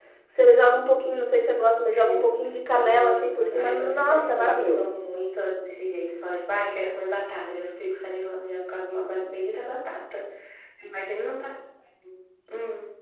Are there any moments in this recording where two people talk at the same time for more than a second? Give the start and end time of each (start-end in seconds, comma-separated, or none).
1.9-4.9